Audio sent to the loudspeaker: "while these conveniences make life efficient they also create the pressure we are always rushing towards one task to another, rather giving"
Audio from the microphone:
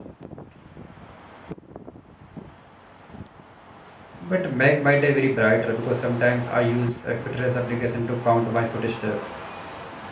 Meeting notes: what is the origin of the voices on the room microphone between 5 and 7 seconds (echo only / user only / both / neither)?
user only